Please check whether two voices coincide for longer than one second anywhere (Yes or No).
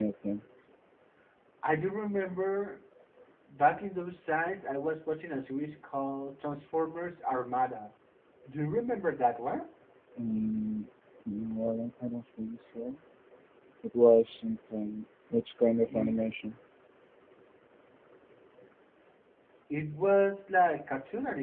No